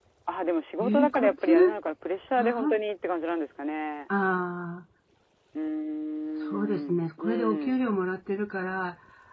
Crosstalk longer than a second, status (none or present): present